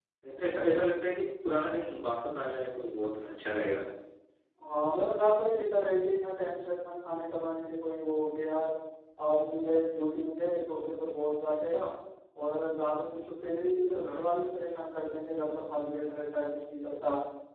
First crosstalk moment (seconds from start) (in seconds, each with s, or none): none